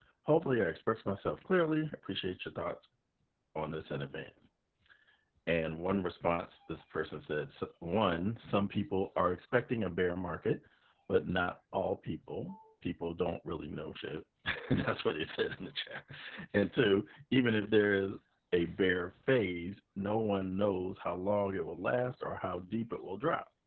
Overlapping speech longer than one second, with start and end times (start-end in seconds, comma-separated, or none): none